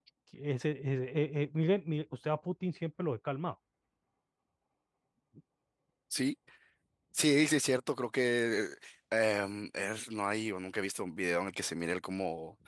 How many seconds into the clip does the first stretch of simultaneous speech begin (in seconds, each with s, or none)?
none